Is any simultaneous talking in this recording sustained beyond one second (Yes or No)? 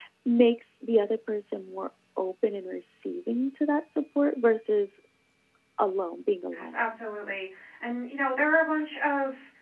No